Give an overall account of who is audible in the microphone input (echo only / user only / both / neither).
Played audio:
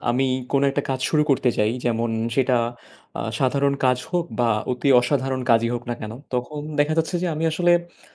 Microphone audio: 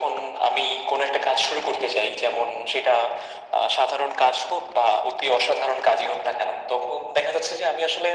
echo only